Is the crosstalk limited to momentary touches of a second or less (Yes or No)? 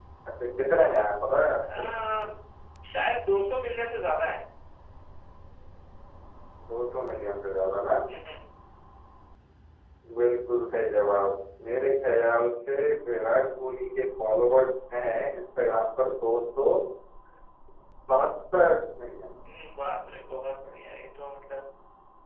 Yes